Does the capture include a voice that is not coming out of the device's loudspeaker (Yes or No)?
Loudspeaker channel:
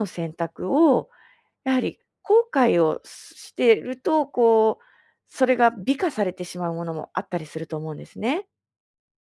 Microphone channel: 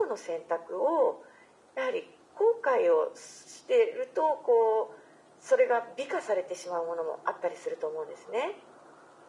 No